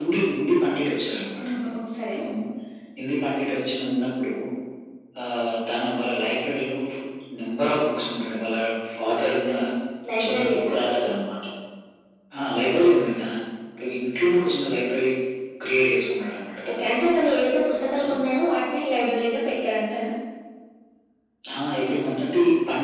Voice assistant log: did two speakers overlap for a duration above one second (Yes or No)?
No